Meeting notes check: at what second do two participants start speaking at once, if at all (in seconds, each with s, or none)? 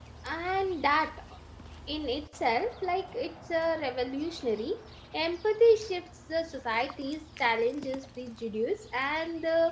none